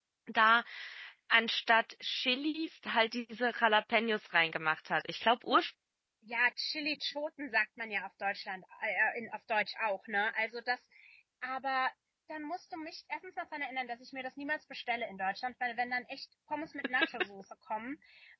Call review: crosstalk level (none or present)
none